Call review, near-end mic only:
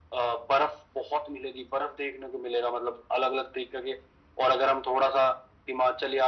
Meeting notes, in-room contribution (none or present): none